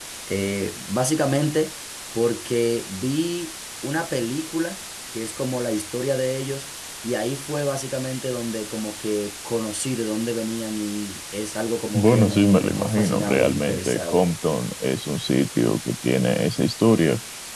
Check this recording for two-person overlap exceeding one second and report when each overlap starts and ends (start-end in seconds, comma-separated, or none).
11.9-14.3